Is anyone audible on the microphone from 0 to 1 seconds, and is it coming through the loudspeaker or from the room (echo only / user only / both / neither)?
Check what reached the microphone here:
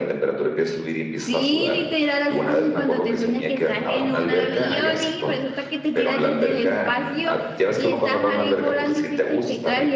echo only